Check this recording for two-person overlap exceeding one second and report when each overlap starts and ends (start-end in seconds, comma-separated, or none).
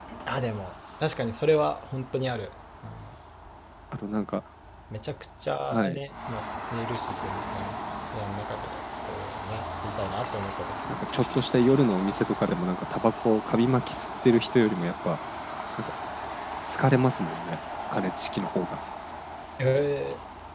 none